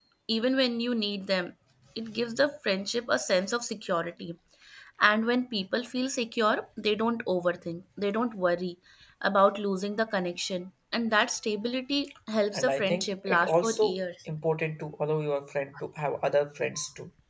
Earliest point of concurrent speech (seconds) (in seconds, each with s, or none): 12.5 s